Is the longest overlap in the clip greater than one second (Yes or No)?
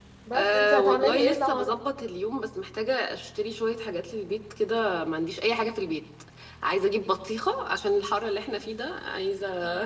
Yes